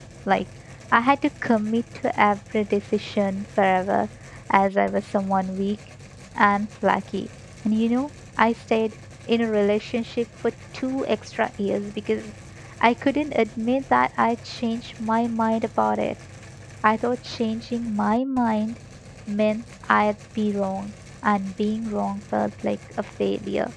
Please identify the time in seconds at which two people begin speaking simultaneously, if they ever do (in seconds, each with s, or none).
none